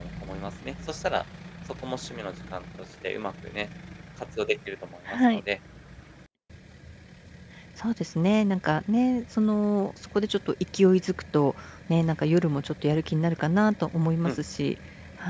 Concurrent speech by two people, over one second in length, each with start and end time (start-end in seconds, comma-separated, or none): none